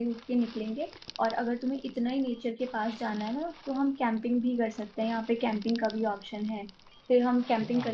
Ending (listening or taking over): listening